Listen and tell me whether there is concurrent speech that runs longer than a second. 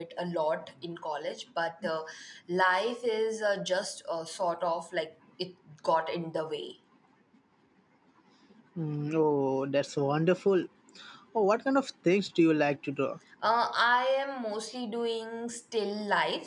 No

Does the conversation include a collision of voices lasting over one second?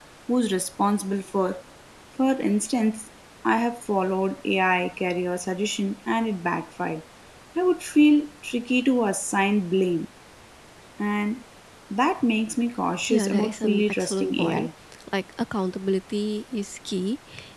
Yes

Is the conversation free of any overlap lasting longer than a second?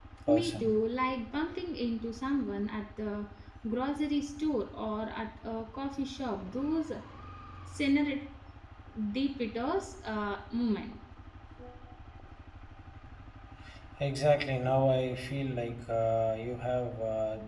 Yes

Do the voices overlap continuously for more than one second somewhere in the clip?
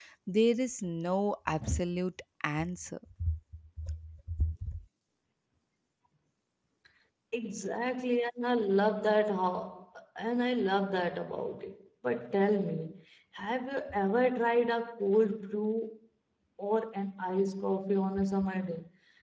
No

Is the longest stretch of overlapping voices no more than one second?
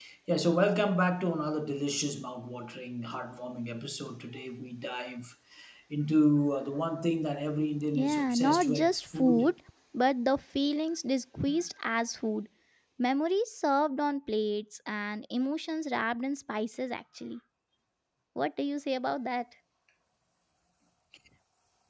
No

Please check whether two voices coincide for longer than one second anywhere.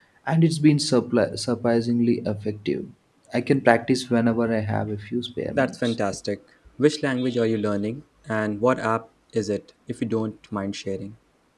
No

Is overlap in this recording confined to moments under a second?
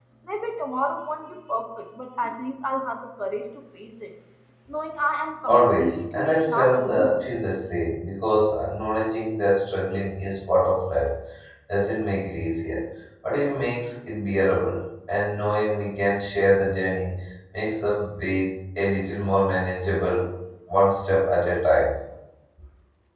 No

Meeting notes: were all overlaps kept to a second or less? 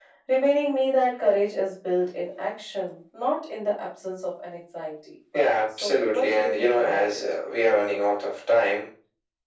No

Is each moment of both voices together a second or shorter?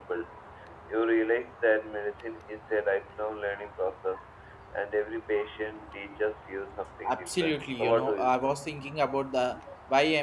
No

